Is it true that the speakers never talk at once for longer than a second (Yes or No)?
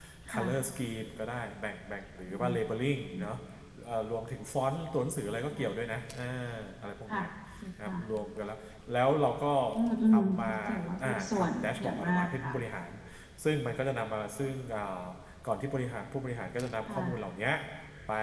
No